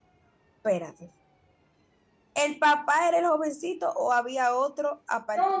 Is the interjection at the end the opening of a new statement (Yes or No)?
Yes